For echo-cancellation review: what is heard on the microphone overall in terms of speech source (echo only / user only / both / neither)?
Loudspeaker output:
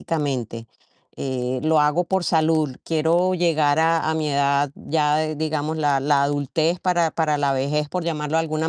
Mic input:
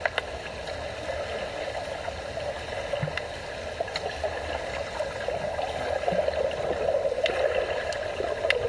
neither